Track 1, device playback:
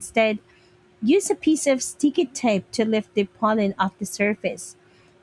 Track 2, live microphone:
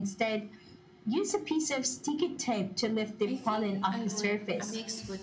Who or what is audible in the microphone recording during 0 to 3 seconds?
echo only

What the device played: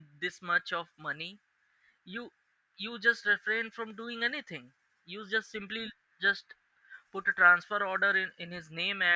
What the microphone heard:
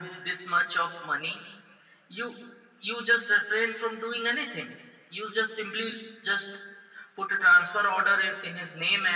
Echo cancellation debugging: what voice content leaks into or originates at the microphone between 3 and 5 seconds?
echo only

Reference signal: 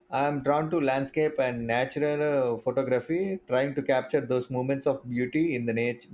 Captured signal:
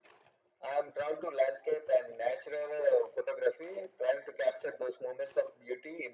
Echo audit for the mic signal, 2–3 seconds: echo only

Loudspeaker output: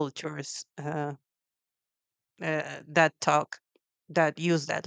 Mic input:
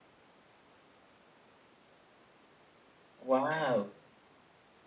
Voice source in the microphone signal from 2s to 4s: user only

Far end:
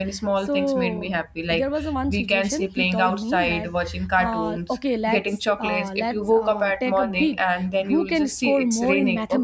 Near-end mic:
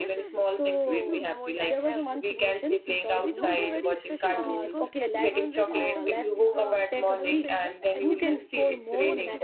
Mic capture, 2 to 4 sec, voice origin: both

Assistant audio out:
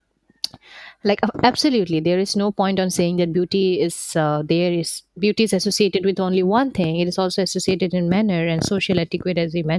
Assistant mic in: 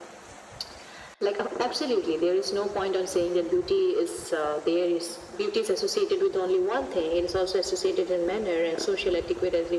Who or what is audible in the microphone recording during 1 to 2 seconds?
echo only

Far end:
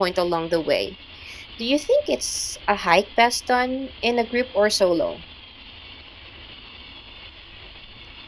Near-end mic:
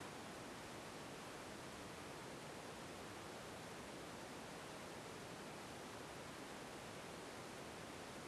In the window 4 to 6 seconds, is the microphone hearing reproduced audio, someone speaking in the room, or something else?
neither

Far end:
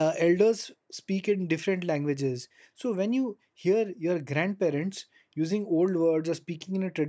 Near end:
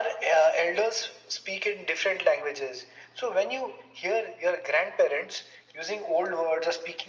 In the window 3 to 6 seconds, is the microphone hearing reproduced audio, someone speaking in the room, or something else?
echo only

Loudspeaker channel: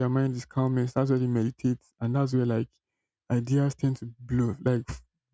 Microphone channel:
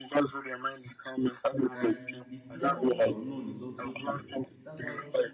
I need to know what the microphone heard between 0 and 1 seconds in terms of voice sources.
echo only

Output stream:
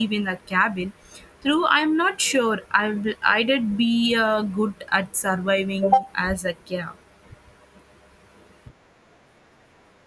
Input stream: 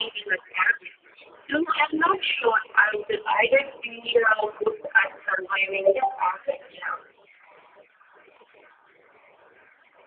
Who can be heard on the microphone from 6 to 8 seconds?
echo only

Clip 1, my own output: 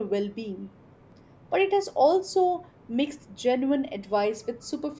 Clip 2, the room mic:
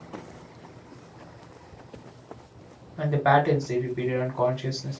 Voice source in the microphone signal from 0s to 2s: neither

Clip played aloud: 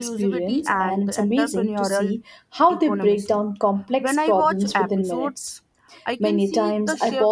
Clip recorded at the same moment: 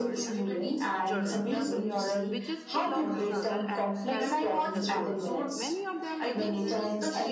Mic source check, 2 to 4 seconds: both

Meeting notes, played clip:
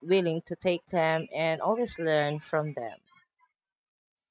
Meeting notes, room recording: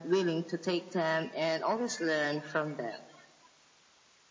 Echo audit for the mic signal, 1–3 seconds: echo only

